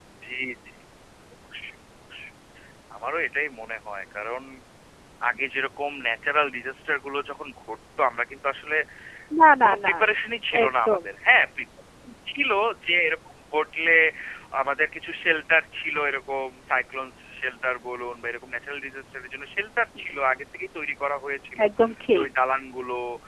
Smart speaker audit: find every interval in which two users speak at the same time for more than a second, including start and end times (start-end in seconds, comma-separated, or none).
none